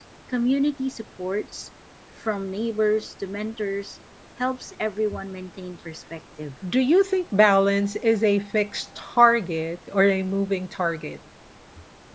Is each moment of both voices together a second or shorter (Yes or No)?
Yes